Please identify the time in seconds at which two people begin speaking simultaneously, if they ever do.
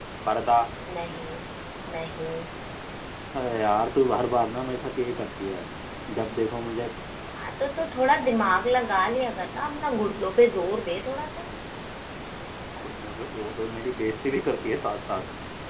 none

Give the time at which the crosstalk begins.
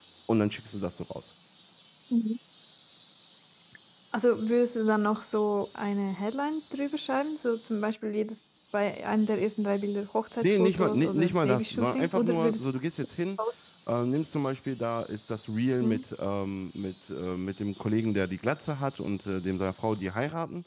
10.4 s

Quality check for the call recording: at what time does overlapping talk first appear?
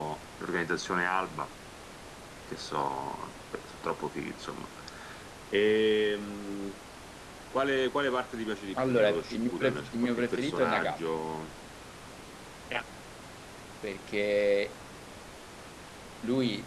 8.8 s

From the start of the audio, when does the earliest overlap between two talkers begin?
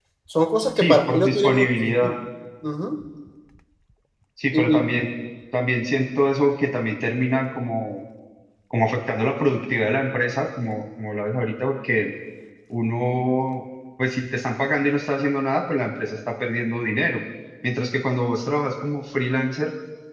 0.8 s

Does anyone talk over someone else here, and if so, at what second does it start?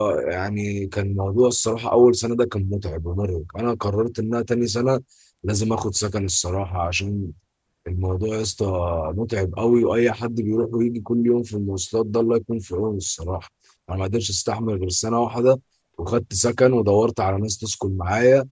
none

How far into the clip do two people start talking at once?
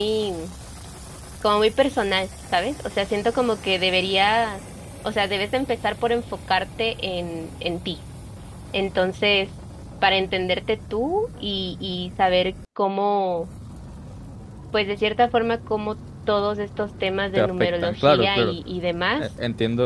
17.4 s

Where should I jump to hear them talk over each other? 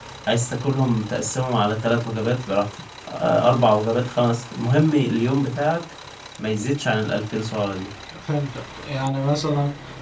none

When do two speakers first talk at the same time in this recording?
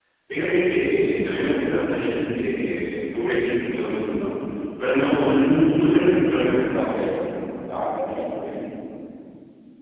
none

